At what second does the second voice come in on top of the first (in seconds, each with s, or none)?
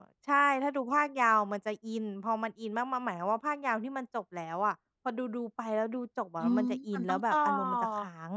6.4 s